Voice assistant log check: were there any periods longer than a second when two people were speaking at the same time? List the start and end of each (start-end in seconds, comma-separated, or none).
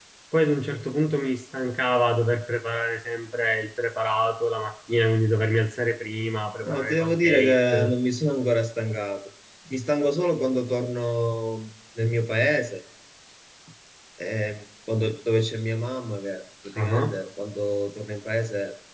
6.6-7.9